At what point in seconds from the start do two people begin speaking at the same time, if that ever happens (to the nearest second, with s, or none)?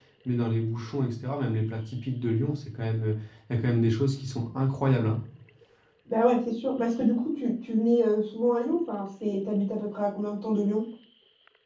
none